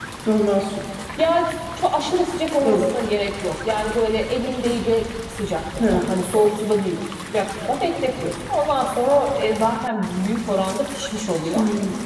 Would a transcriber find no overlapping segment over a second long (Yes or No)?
Yes